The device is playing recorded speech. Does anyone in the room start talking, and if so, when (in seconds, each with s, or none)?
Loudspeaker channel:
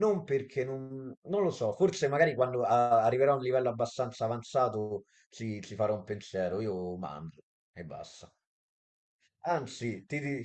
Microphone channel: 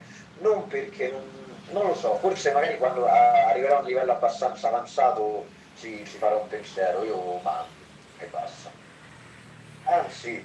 none